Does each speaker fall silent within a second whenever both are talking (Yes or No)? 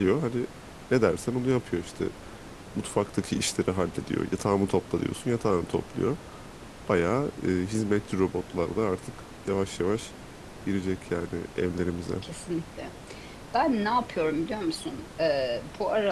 Yes